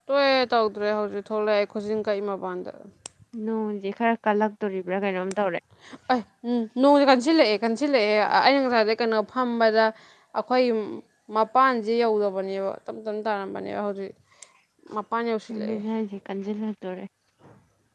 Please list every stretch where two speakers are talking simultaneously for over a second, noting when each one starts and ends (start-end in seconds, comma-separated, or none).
none